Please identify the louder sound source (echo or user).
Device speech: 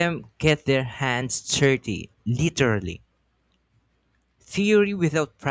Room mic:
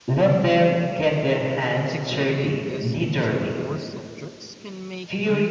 echo